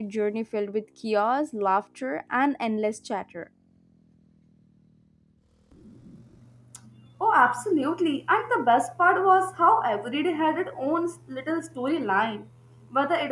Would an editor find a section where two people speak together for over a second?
No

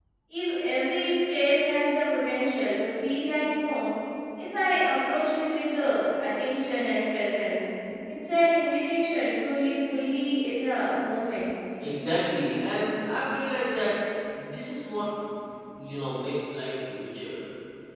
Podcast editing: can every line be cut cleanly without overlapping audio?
Yes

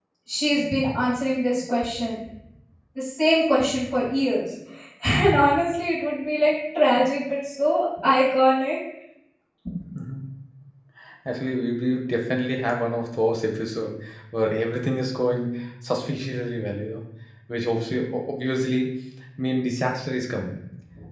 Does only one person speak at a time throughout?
Yes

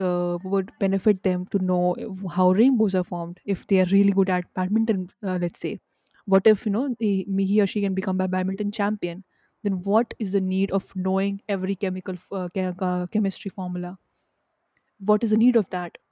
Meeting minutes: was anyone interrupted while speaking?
No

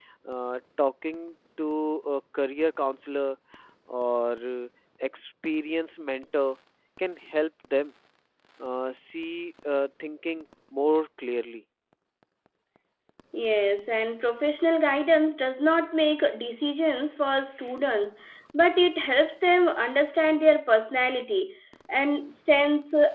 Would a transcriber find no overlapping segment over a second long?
Yes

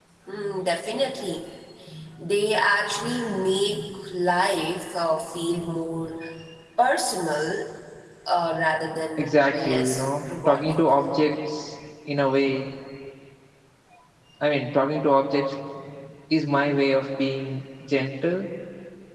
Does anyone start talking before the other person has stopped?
Yes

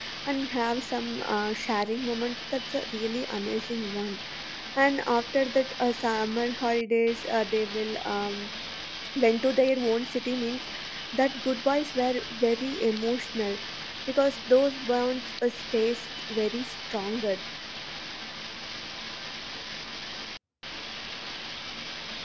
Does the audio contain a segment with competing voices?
No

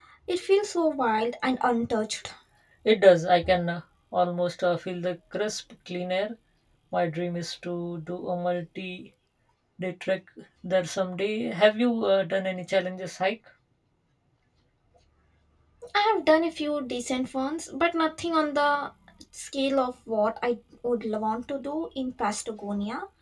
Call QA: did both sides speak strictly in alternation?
Yes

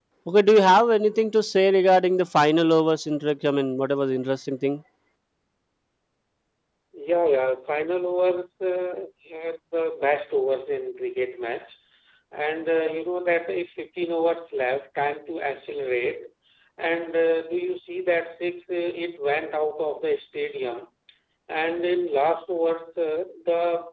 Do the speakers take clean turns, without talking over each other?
Yes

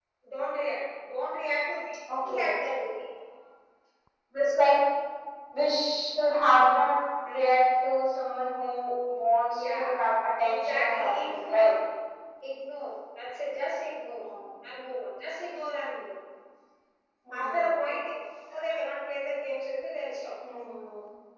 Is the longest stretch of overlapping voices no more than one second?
No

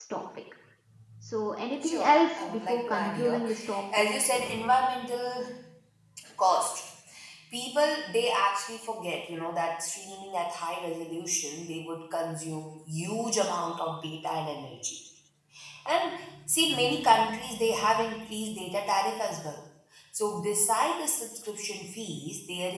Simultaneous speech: Yes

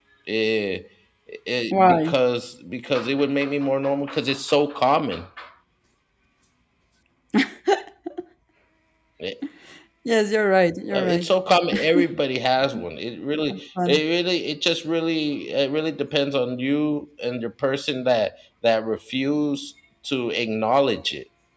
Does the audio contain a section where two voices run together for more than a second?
No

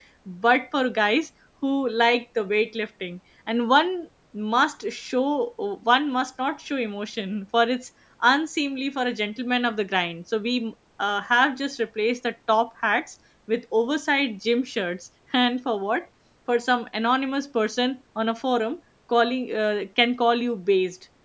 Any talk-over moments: No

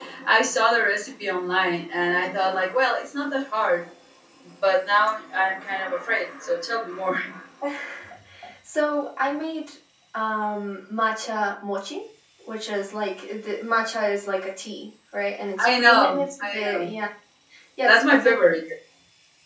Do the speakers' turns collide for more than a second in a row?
Yes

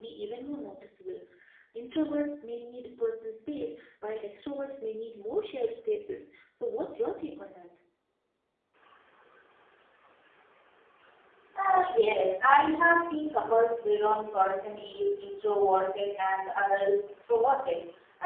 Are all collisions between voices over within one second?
Yes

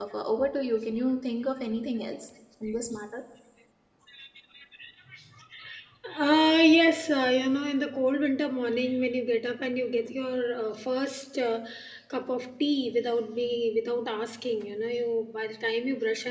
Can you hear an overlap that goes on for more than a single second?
No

